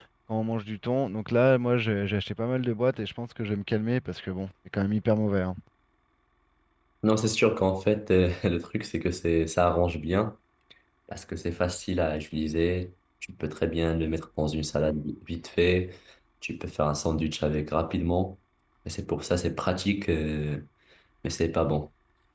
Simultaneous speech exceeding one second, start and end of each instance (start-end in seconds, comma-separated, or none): none